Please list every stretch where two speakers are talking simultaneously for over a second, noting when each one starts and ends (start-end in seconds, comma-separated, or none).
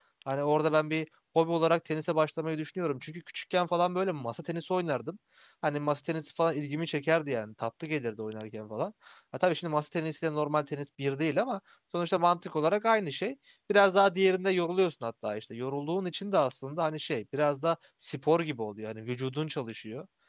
none